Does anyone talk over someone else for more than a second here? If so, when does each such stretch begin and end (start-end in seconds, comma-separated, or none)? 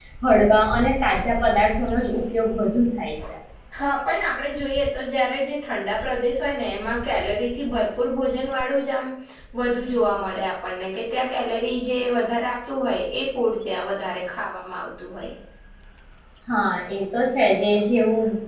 none